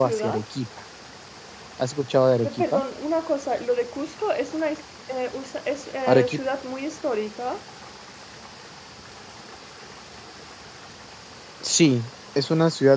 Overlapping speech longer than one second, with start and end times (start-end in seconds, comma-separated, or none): none